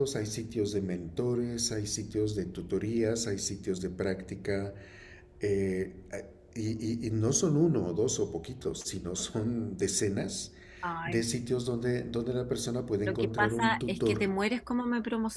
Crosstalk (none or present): present